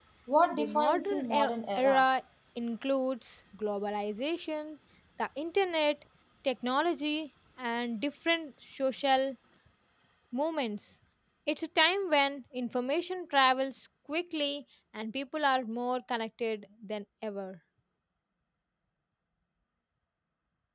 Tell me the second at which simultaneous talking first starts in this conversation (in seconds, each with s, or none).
0.5 s